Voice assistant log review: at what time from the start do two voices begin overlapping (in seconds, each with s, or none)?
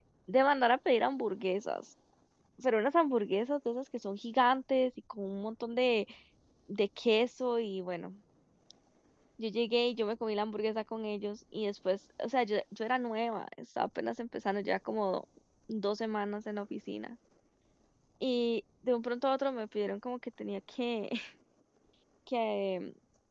none